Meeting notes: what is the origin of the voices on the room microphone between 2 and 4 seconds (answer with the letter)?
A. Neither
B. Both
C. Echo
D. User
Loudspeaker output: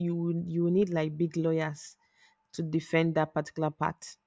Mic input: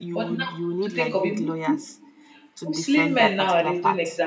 B